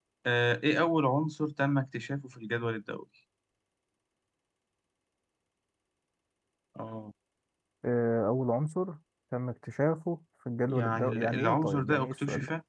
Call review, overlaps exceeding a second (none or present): present